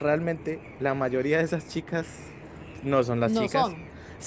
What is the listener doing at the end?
listening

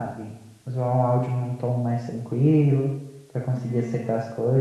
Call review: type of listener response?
taking over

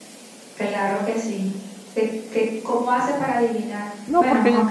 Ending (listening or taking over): taking over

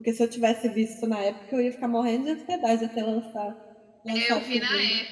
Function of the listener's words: taking over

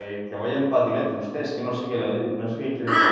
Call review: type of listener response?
taking over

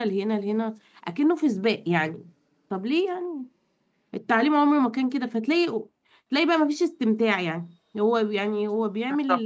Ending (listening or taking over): listening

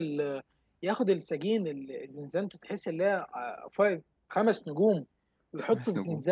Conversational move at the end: listening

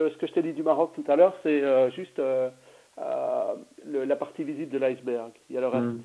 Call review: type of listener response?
taking over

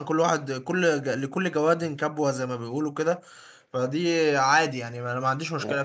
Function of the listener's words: taking over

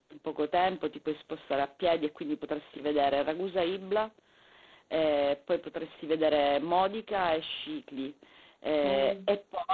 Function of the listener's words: listening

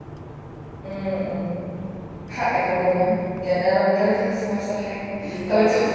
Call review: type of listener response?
listening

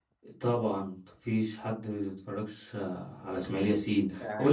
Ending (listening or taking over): listening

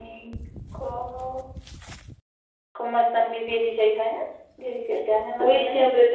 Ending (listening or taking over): taking over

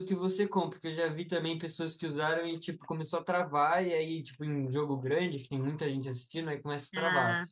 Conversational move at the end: listening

